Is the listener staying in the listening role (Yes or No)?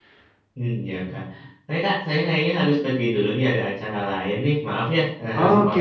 No